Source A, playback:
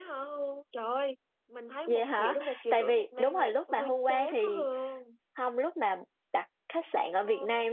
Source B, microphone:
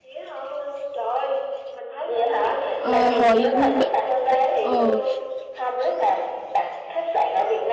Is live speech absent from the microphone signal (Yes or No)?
No